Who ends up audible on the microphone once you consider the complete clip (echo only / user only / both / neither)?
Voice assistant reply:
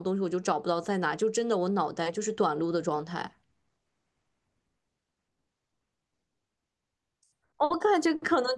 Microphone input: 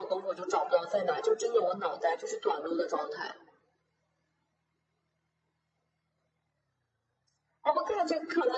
echo only